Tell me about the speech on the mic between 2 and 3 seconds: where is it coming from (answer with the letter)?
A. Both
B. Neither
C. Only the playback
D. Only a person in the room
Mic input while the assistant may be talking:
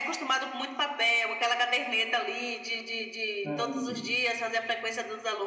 C